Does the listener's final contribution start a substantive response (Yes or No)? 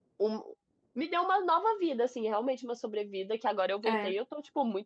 No